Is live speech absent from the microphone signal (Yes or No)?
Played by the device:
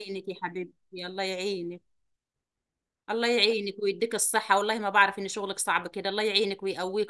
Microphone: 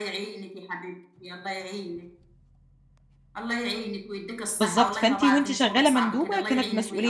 No